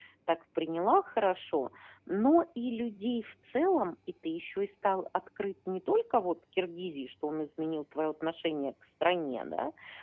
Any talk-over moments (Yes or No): No